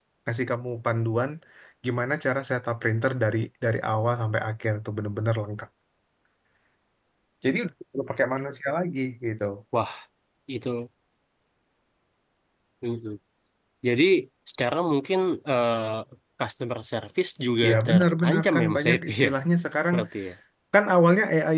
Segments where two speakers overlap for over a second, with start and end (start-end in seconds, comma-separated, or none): 17.7-19.3